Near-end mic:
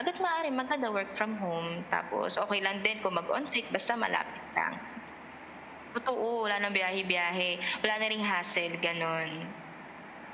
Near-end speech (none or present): none